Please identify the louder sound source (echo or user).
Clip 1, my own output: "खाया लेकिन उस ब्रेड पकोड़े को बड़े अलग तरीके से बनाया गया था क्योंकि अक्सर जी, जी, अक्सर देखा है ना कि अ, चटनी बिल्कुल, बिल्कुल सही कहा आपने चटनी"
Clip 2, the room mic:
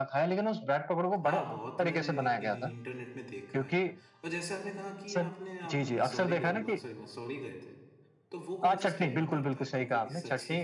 echo